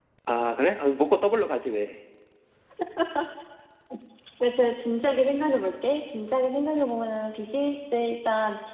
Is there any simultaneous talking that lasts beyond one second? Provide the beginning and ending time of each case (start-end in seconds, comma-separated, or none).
none